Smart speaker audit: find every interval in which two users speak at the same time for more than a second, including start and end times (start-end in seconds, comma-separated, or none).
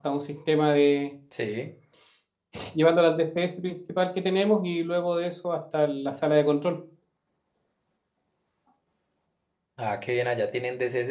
none